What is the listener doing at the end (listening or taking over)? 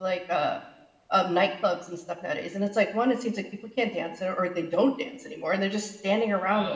taking over